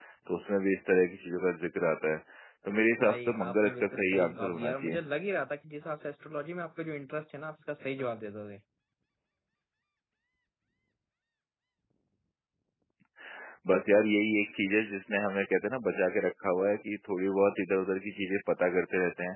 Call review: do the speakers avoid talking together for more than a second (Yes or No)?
No